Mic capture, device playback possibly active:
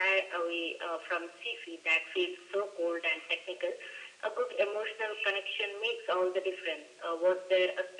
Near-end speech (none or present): none